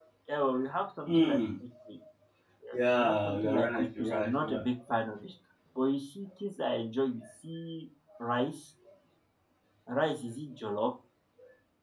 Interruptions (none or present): present